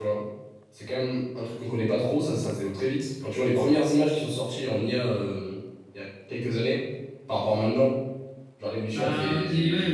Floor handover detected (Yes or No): Yes